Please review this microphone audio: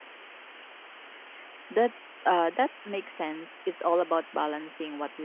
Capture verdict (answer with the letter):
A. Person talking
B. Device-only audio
A